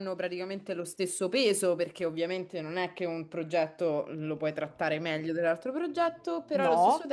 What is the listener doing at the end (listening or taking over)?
listening